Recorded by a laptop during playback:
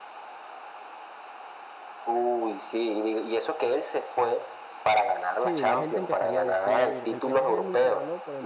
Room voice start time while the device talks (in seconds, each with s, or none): 5.4 s